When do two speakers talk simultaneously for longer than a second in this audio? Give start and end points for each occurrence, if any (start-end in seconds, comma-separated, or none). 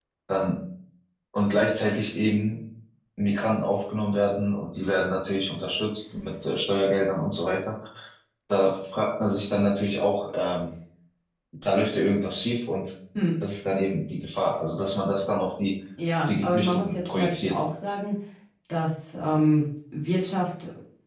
16.3-17.6